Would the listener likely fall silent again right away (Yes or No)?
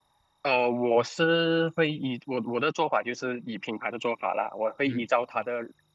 Yes